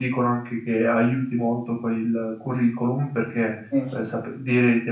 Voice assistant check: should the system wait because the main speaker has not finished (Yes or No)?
Yes